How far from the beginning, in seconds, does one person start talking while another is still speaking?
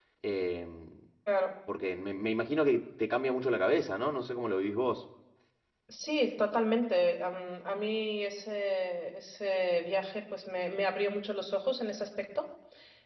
none

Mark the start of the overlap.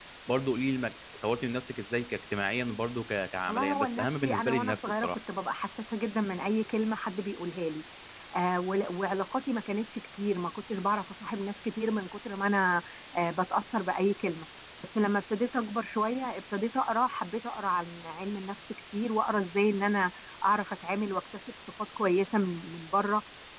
3.5 s

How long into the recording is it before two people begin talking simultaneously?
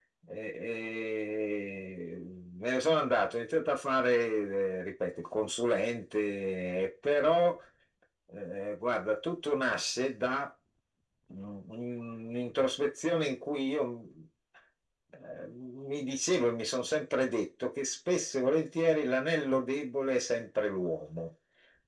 none

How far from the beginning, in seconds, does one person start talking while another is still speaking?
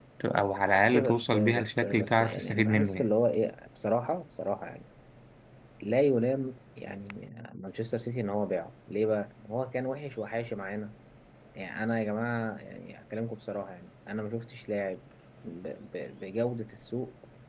0.9 s

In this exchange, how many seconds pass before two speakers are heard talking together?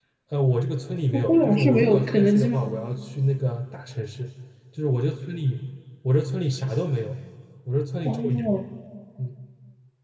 1.1 s

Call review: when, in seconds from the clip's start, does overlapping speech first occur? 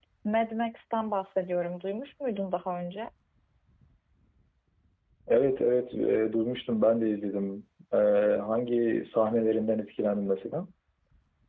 none

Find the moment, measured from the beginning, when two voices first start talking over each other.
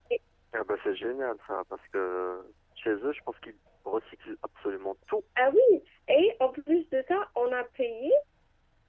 none

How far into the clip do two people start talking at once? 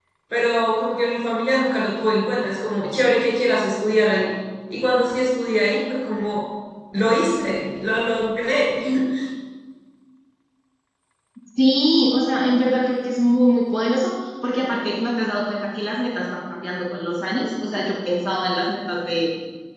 none

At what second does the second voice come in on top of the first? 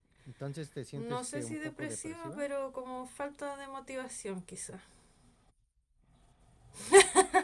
1.0 s

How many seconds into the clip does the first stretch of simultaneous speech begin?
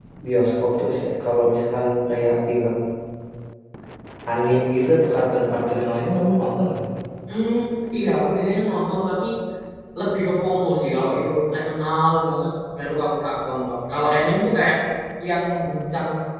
none

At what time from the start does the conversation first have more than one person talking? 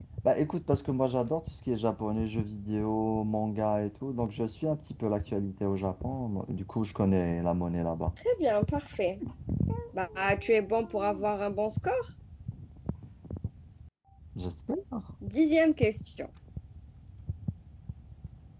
none

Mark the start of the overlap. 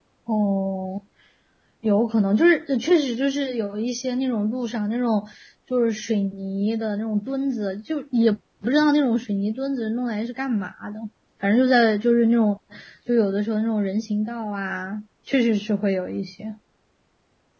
none

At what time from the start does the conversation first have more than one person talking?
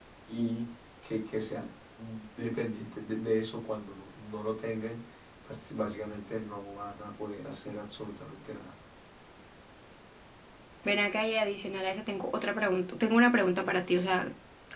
none

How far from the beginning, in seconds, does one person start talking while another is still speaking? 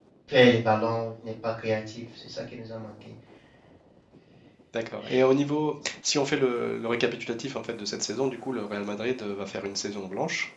none

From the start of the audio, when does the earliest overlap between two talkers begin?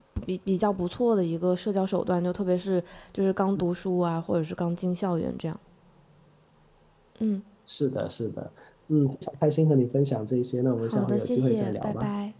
10.8 s

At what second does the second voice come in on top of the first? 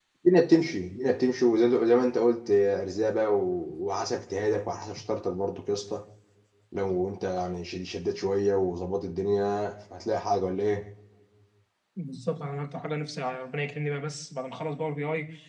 none

